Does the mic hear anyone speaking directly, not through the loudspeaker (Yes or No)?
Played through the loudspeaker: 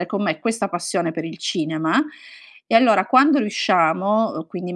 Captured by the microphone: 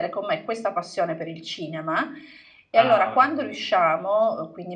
Yes